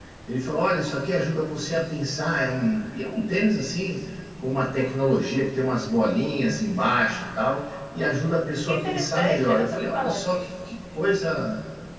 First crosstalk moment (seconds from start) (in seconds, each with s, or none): 8.7 s